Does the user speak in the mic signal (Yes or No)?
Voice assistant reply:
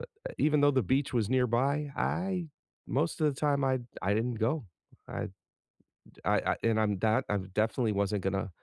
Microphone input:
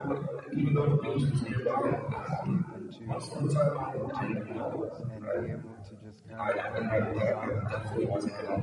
Yes